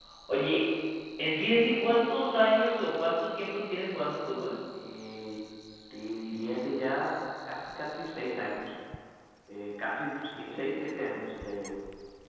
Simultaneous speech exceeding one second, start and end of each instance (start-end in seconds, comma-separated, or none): none